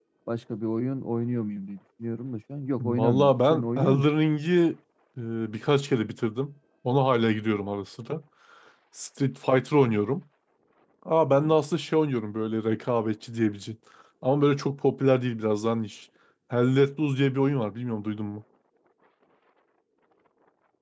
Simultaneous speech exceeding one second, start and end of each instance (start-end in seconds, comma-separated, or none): 2.8-4.1